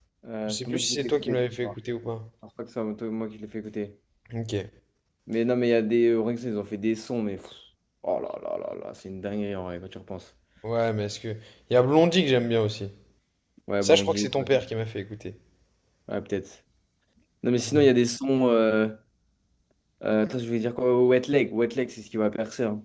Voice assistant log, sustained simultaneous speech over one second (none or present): present